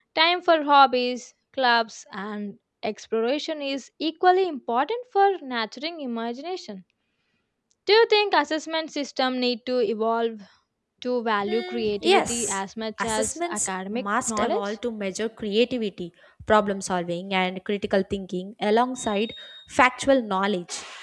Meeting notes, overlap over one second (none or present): present